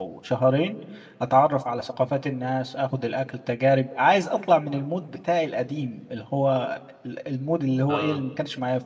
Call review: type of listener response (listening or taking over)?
listening